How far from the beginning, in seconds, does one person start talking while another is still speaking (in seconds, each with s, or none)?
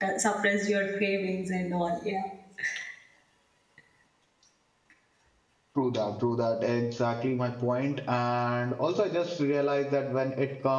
none